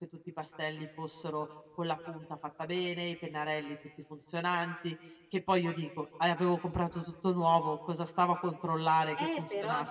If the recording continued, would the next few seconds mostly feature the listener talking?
Yes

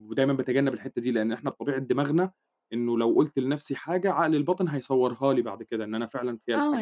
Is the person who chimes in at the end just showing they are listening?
No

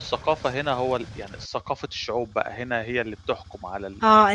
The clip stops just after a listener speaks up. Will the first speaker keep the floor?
No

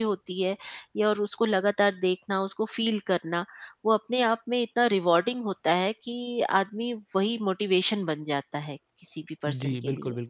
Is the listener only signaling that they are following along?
No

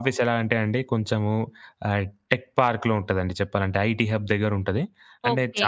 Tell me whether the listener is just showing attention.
Yes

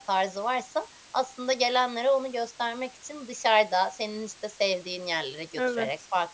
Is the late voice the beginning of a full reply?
No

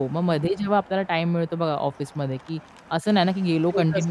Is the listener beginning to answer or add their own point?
No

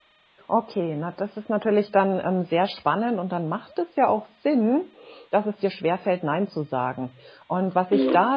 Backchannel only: Yes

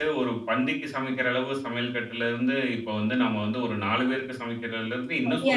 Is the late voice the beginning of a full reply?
Yes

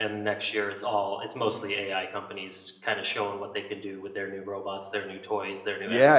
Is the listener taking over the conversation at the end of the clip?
Yes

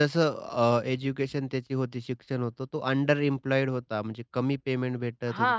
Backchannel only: No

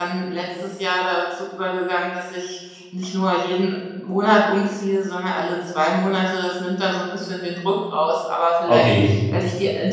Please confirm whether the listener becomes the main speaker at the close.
No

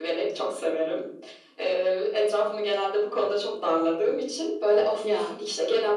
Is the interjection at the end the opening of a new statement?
No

